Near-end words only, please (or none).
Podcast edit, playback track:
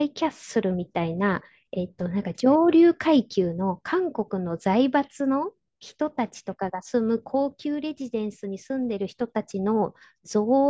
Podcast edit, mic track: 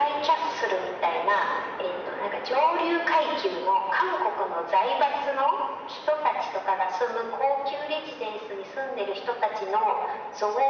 none